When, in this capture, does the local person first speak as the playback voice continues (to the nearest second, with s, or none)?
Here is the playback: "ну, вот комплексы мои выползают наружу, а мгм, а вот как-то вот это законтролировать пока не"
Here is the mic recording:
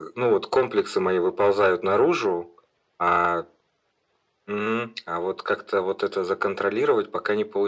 none